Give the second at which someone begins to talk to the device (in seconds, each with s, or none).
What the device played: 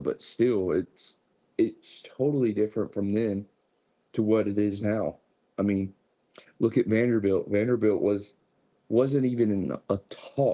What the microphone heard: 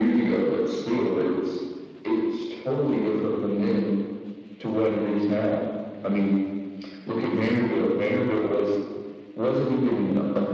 none